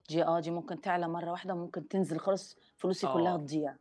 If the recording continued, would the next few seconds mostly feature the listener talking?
Yes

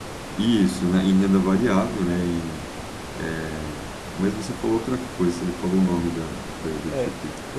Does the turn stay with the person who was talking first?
No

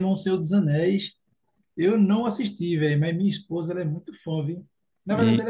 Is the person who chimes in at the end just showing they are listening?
Yes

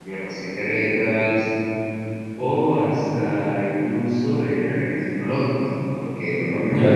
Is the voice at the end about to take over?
No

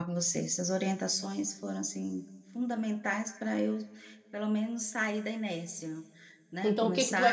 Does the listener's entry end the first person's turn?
Yes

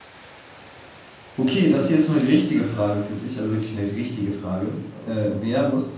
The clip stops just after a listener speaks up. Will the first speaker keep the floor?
Yes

